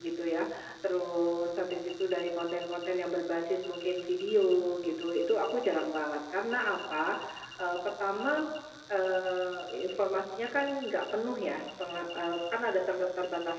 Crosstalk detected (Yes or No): No